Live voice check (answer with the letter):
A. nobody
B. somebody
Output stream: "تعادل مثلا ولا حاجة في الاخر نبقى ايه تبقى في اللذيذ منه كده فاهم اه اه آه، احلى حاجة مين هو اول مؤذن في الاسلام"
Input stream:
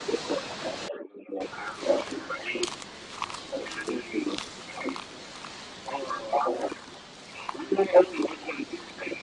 A